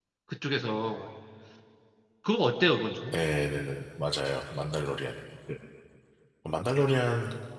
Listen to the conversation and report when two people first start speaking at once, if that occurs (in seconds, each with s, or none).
none